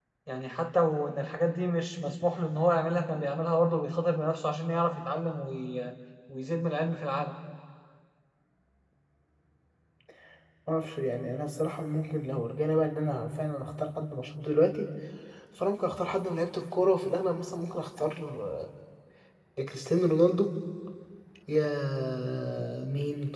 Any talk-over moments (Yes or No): No